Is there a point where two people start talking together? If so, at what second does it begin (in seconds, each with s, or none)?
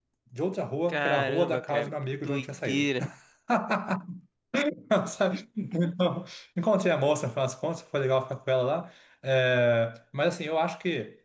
0.9 s